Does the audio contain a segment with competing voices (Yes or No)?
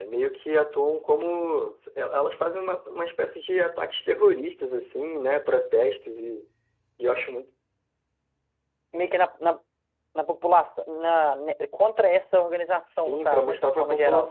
Yes